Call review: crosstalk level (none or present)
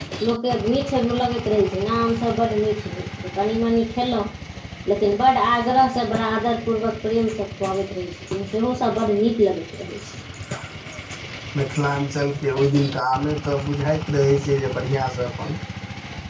none